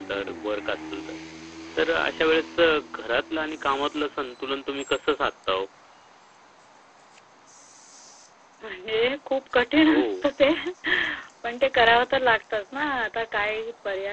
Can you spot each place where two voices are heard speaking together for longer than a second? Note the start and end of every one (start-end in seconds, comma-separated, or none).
none